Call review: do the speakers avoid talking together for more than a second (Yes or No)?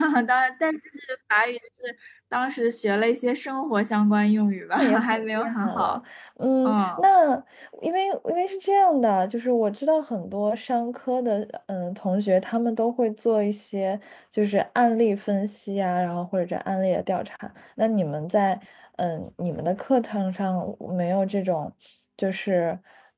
No